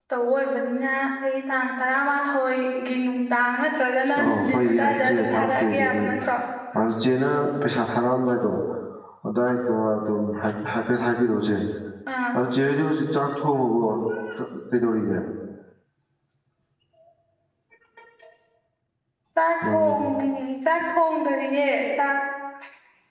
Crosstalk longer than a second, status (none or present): present